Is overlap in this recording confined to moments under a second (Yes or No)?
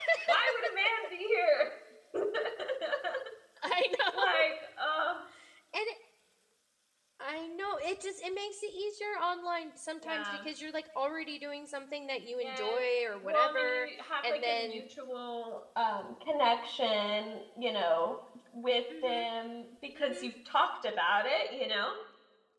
No